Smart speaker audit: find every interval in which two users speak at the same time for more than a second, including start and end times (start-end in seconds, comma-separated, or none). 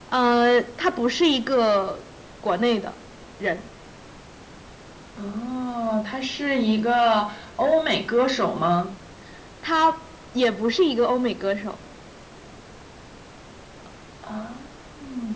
none